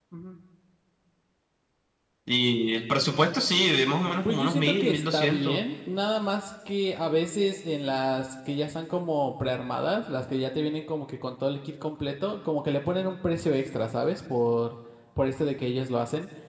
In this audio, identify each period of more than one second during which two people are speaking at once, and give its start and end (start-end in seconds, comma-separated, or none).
4.3-5.6